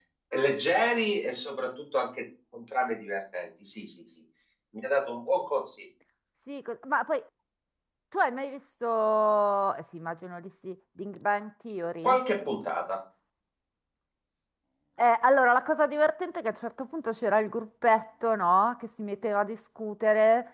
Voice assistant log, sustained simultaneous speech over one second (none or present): none